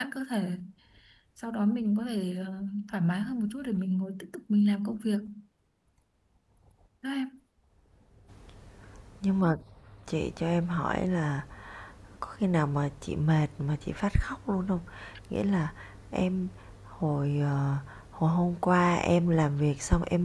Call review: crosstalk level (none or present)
none